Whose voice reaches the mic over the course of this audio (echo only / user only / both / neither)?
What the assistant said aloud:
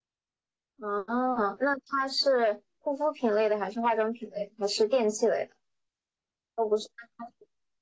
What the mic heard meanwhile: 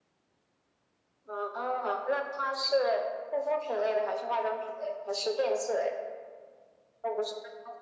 echo only